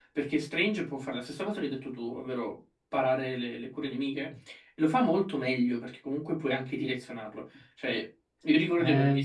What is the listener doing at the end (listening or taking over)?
listening